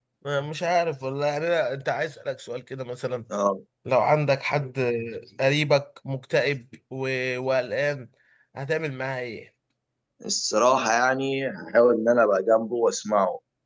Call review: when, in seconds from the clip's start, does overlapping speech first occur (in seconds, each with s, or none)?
none